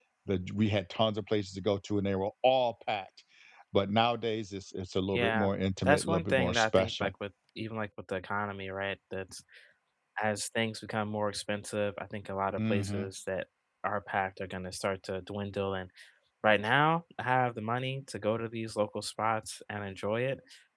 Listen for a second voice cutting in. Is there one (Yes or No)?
Yes